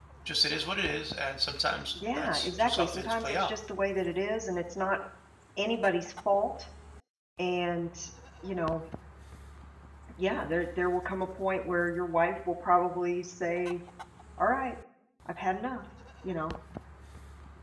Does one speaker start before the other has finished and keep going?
Yes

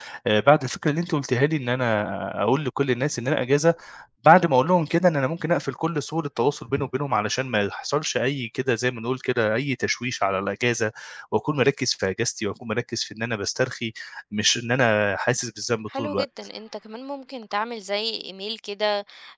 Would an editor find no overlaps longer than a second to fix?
Yes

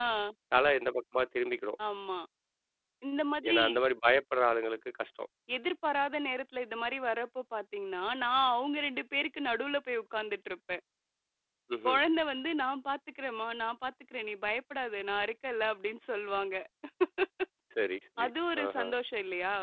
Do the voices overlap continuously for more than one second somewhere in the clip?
No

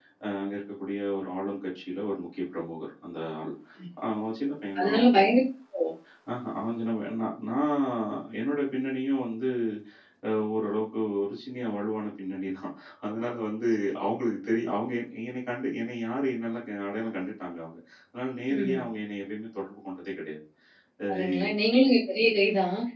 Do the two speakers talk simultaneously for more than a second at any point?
No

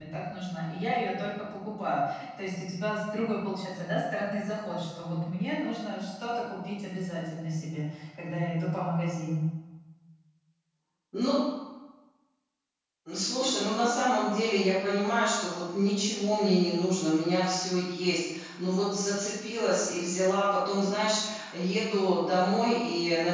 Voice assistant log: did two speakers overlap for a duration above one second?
No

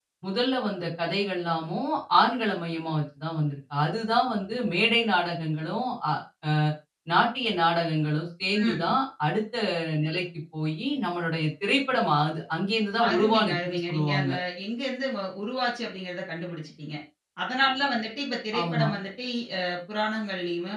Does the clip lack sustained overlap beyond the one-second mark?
No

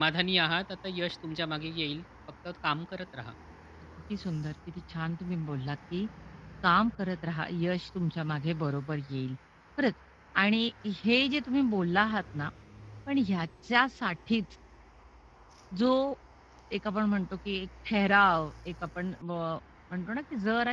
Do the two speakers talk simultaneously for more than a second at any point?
No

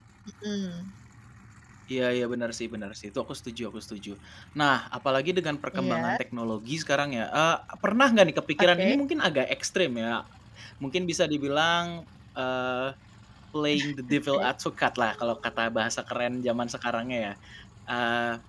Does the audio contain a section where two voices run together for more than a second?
No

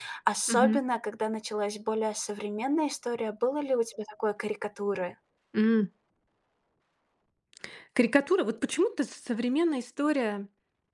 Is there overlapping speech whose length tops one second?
No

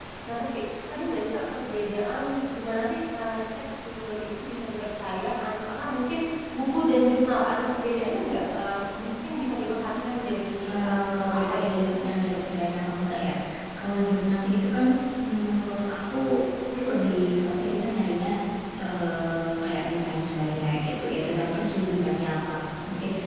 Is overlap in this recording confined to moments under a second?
No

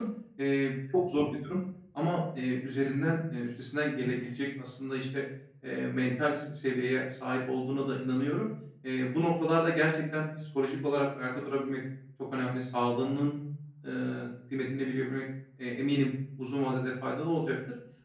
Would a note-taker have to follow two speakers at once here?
No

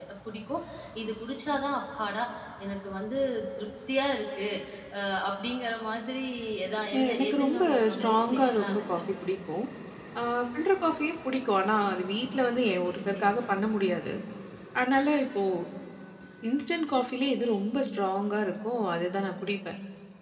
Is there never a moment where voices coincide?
No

